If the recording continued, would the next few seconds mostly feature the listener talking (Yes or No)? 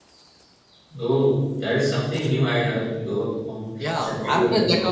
Yes